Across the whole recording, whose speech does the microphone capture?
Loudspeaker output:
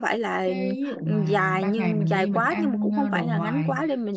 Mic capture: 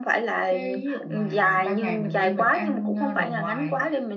echo only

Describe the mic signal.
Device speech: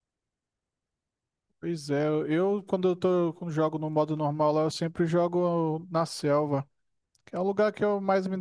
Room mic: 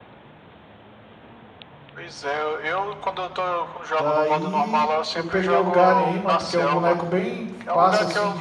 both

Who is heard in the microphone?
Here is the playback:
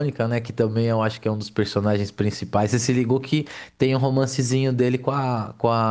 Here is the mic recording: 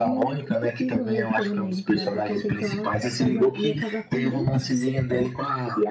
both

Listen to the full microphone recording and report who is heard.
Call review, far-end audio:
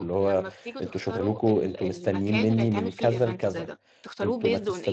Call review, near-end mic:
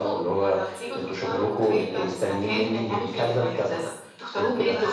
both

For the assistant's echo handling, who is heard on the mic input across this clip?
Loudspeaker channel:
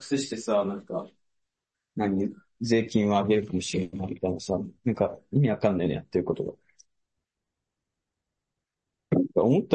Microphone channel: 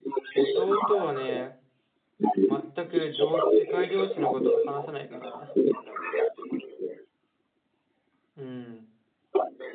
both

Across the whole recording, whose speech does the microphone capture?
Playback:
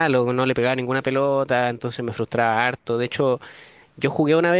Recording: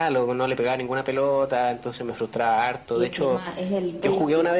both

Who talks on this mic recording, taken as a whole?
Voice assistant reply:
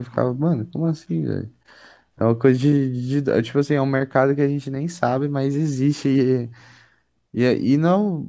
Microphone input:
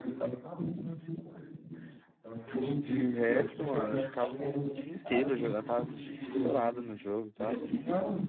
both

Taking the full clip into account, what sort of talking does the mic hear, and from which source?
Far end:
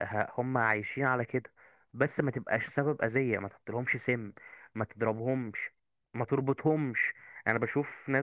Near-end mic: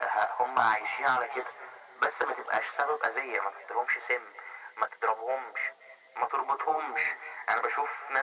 echo only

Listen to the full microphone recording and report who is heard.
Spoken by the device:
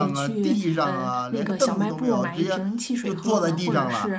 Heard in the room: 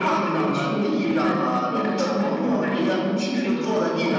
echo only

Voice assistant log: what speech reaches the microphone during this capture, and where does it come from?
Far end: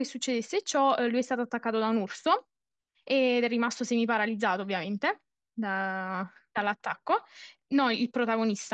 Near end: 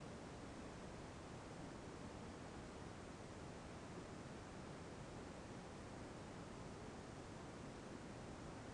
neither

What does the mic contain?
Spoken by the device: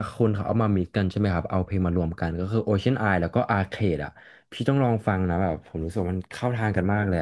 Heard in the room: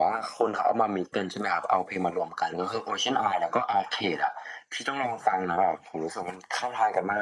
echo only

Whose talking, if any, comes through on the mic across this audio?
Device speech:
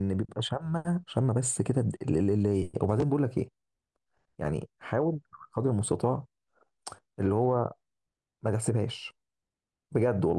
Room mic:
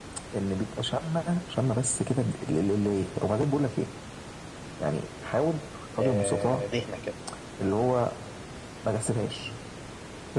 both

